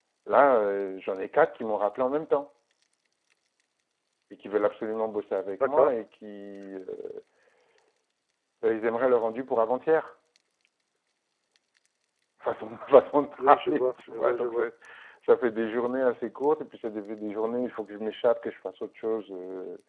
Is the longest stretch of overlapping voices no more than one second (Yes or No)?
No